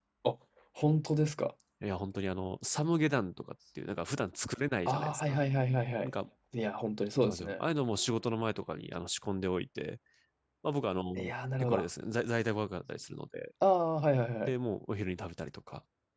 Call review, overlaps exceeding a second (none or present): none